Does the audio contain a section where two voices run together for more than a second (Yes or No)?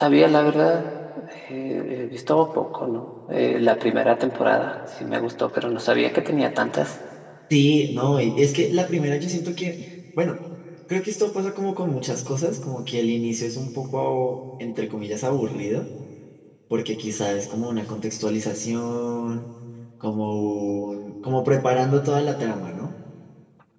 No